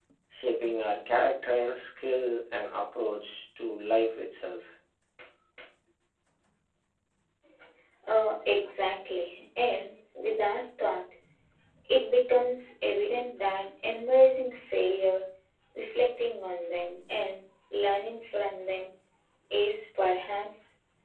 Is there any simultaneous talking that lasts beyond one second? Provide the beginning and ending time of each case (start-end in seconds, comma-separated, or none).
none